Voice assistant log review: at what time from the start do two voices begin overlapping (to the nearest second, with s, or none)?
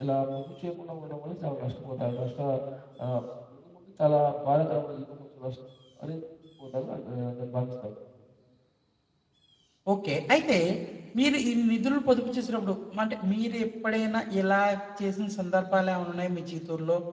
none